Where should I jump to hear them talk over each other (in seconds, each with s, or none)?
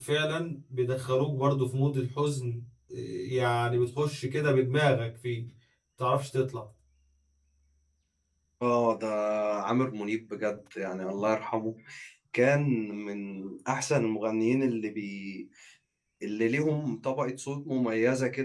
none